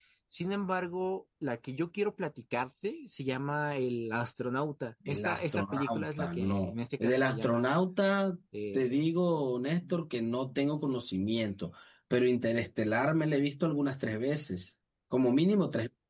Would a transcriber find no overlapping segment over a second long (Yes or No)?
No